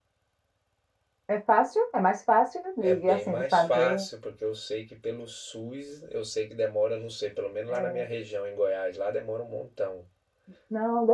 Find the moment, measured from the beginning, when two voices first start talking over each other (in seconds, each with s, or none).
2.8 s